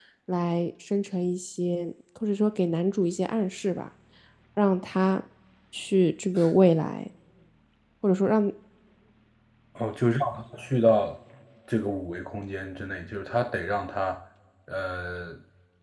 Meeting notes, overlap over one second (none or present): none